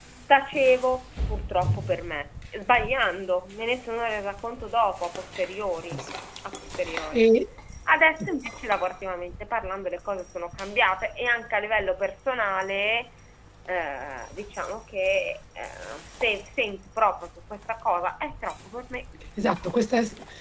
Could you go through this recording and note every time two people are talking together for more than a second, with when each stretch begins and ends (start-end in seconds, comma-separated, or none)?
none